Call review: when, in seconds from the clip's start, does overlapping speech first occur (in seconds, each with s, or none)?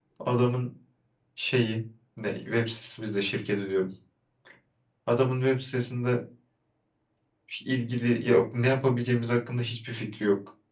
none